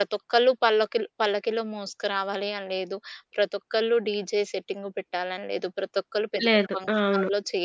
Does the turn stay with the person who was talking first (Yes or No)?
Yes